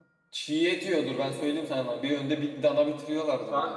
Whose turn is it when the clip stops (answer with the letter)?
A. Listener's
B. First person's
A